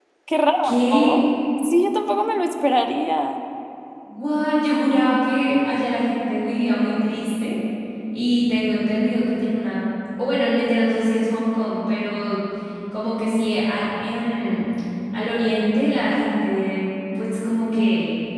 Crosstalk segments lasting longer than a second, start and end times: none

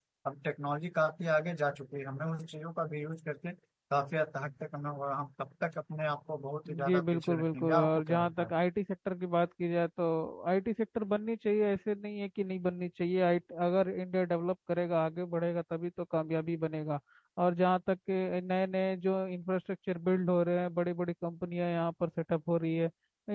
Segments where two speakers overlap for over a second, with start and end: 6.8-8.5

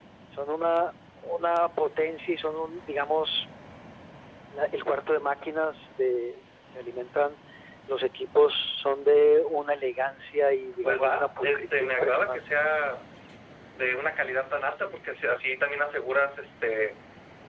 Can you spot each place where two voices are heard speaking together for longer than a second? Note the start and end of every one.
10.8-12.4

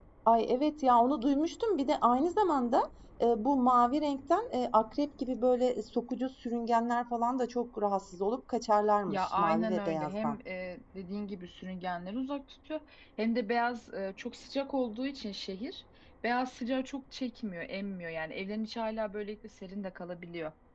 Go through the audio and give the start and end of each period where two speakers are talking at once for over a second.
9.1-10.4

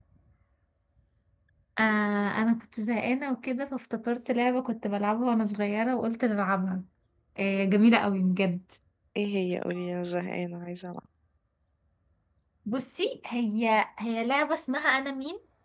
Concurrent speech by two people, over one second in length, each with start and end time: none

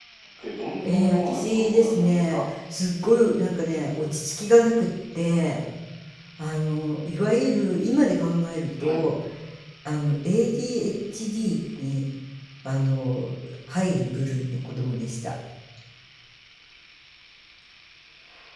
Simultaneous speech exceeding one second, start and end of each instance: 0.8-2.4

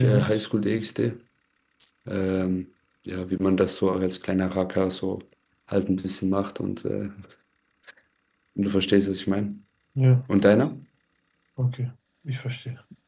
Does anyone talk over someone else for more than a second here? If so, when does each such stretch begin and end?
none

